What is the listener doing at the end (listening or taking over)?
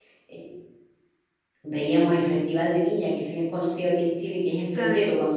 listening